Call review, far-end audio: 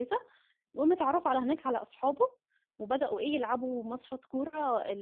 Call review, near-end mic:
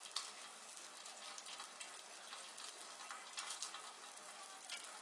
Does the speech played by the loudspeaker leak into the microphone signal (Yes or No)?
No